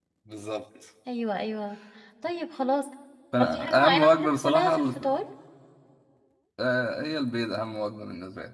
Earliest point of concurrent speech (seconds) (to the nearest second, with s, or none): 3 s